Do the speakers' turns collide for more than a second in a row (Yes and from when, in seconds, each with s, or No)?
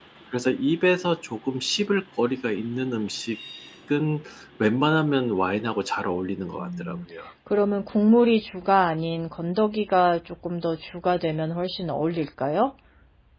No